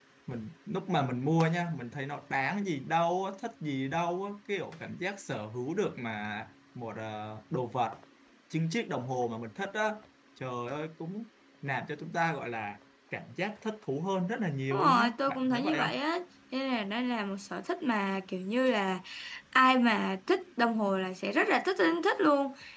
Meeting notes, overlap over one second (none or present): present